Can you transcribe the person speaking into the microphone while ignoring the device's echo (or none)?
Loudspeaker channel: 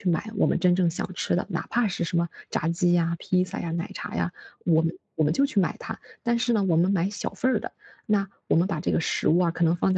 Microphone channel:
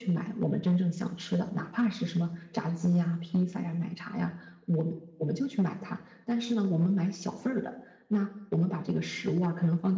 none